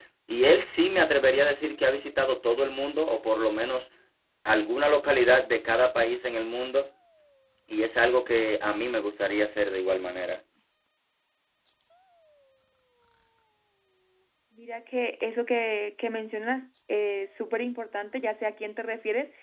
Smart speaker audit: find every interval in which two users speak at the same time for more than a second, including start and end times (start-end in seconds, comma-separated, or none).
none